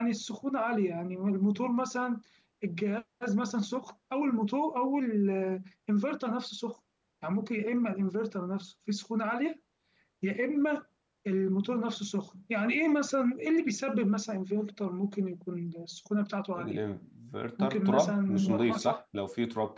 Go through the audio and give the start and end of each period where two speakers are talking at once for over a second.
17.6-18.9

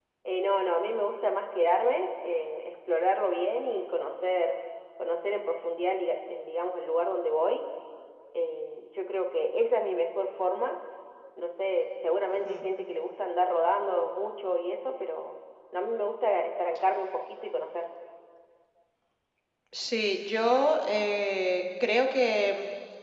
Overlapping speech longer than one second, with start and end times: none

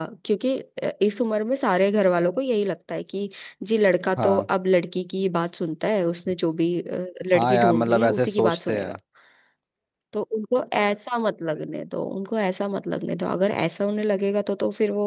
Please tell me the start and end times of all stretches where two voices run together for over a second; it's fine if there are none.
7.4-9.0

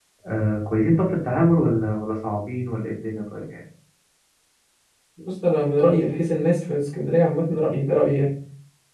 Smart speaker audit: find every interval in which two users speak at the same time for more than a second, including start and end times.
none

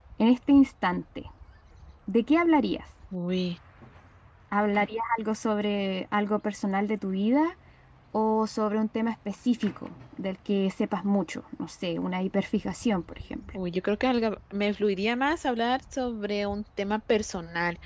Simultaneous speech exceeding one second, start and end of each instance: none

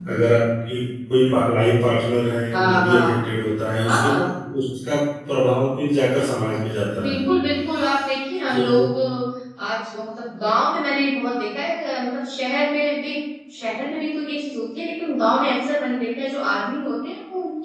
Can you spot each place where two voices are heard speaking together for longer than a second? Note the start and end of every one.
none

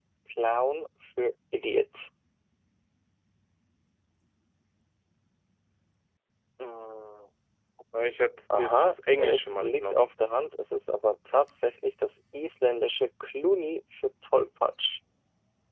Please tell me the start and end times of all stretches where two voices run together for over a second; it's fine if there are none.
8.6-10.0

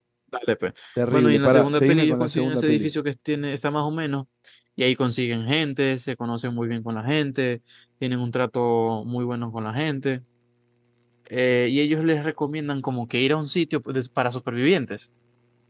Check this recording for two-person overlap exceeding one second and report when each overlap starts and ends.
1.1-2.9

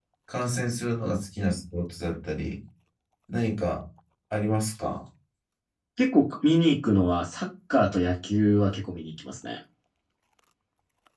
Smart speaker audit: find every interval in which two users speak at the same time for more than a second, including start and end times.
none

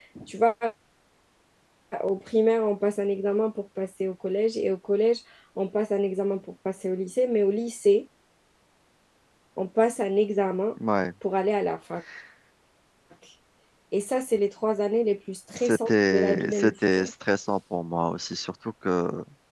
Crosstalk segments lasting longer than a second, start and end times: 15.6-17.1

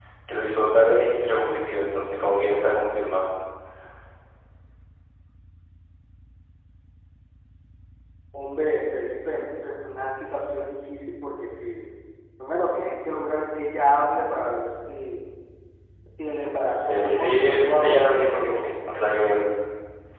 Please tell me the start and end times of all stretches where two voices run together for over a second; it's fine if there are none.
16.8-18.7

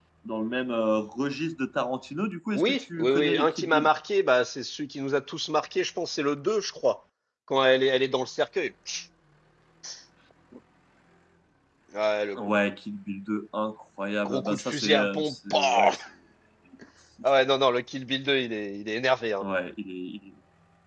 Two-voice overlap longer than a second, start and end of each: 2.5-3.9, 14.2-15.9

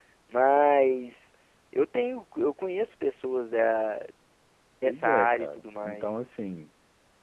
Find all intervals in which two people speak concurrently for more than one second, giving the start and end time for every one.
4.8-6.2

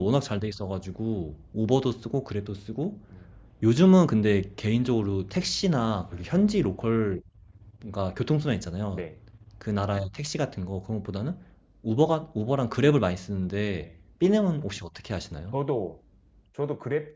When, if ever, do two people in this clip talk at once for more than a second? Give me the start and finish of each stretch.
none

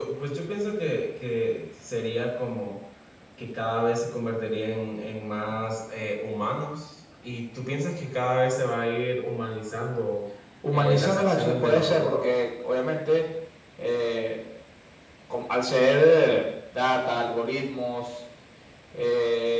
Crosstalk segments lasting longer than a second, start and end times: 10.7-12.2

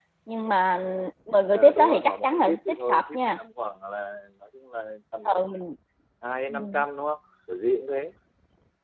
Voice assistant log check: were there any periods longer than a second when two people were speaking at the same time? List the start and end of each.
1.5-3.4

